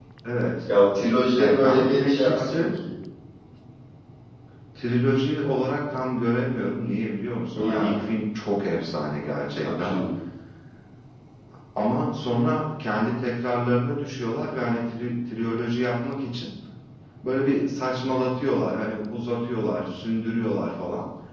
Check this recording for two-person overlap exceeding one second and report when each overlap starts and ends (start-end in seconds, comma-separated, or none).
1.4-2.6